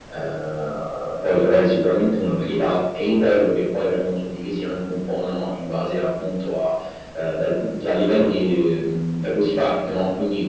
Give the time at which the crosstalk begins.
none

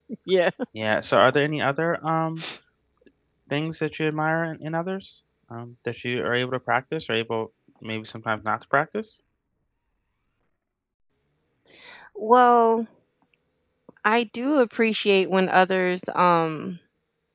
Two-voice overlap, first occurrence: none

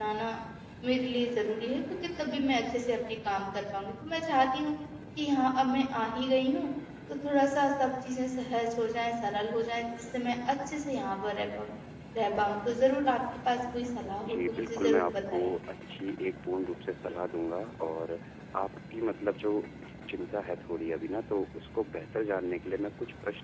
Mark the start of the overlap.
14.2 s

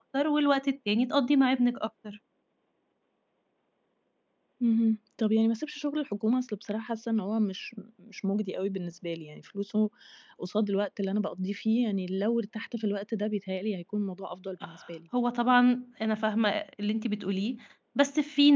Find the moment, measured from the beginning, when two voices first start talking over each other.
none

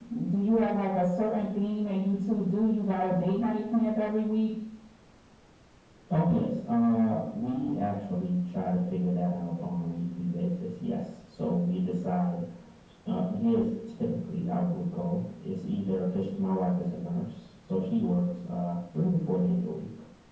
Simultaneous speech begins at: none

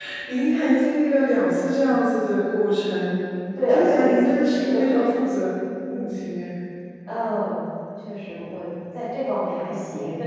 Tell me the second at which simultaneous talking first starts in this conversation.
3.7 s

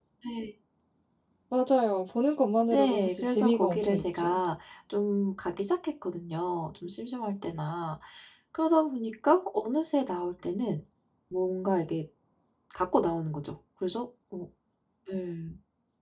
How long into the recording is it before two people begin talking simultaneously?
2.7 s

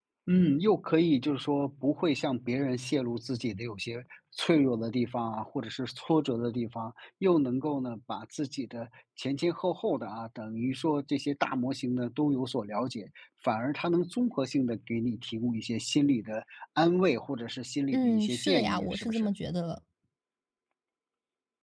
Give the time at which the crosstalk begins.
17.9 s

